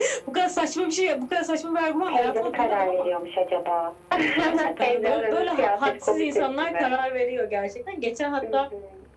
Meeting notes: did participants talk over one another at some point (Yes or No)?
Yes